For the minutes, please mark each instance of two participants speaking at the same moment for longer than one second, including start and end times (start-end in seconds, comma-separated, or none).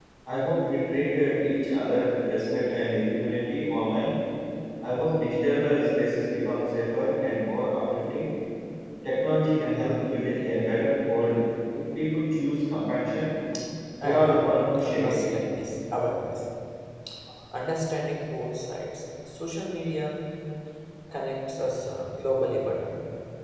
14.0-15.2